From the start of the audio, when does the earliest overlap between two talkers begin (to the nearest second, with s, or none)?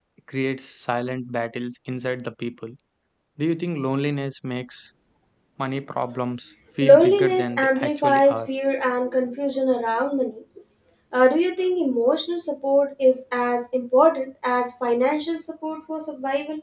7 s